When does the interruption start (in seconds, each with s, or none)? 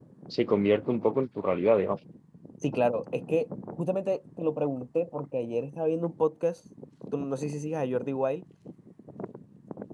none